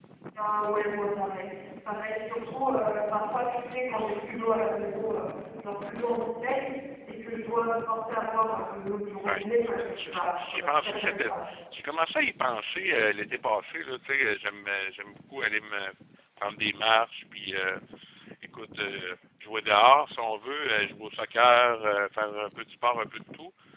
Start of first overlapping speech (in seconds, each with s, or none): 9.2 s